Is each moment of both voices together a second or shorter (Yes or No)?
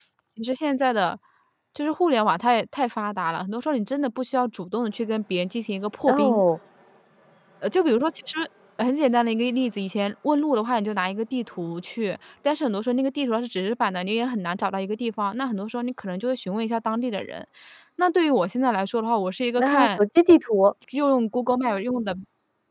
Yes